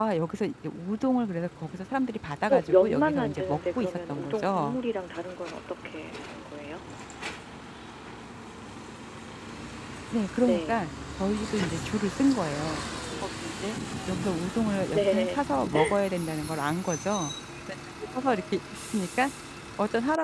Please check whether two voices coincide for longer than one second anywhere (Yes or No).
Yes